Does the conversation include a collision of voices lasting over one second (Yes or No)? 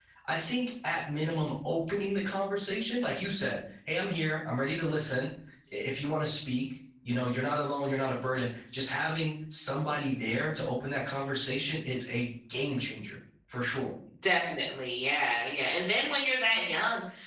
No